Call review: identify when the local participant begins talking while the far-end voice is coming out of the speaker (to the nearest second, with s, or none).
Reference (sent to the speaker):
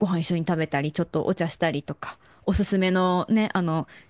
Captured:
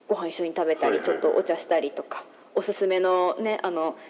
1 s